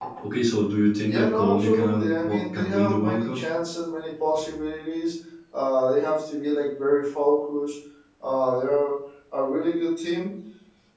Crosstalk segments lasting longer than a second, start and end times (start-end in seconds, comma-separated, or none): 1.1-3.4